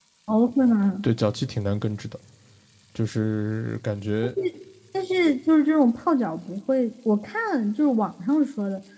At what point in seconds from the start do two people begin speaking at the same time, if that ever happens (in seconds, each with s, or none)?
none